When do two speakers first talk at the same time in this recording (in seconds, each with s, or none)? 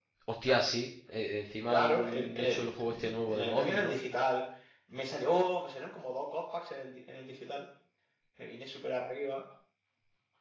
1.7 s